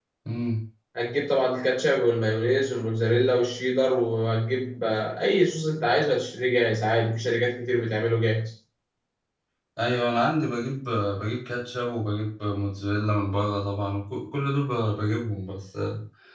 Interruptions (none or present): none